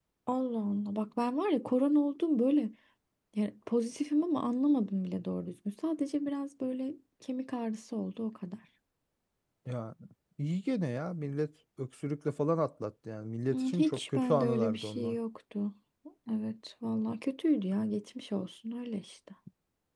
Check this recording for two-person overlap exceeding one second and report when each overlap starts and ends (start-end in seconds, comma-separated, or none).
13.5-15.2